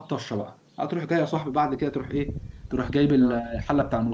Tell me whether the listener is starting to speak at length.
No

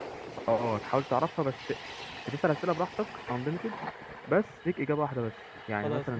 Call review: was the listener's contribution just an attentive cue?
Yes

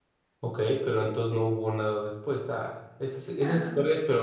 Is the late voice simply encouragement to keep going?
Yes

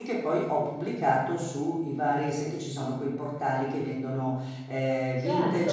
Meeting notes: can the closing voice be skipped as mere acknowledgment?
Yes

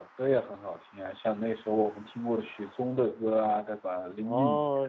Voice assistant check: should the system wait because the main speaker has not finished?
No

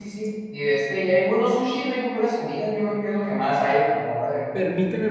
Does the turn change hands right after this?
Yes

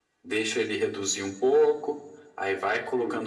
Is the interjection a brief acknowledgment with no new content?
Yes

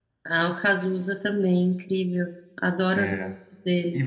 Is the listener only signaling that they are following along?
No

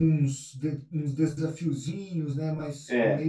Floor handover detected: Yes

